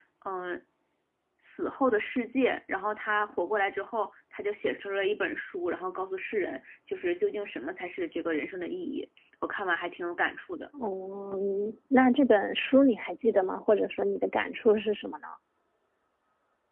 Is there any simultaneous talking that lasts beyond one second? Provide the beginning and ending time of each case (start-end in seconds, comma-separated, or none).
none